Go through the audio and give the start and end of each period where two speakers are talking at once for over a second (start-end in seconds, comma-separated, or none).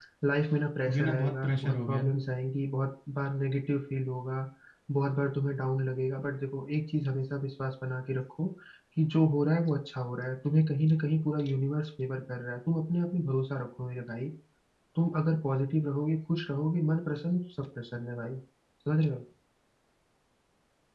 0.9-2.1